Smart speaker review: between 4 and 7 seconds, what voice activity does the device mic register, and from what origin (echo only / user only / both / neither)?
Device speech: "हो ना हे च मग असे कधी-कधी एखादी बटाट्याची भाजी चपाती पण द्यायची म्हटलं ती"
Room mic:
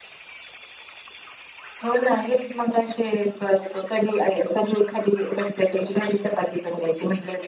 echo only